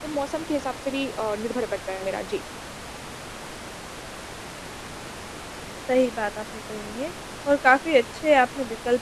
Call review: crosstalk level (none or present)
none